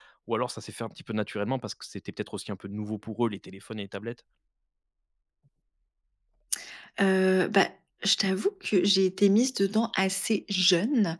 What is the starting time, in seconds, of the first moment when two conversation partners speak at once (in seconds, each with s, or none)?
none